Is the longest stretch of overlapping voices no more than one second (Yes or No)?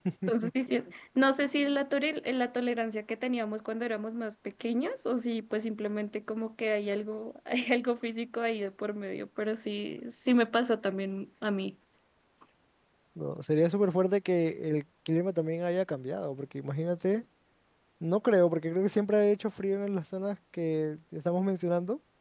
Yes